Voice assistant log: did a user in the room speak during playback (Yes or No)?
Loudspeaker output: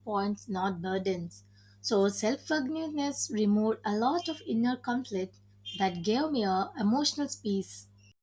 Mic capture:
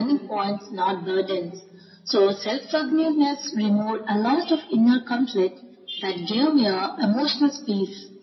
No